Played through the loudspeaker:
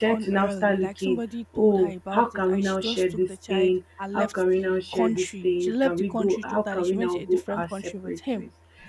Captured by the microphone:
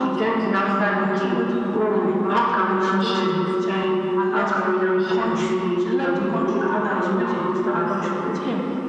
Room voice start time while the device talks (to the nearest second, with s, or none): none